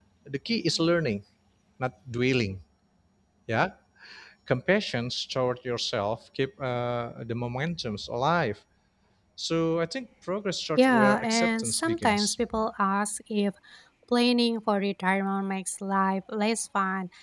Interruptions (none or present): present